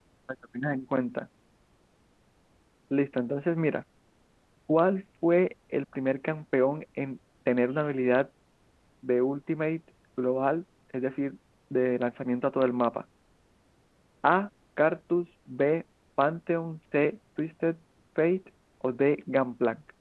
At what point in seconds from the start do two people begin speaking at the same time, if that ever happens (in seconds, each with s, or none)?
none